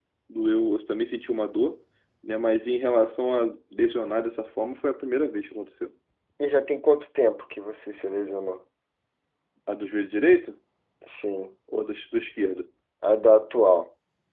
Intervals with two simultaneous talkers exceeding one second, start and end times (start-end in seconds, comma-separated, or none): none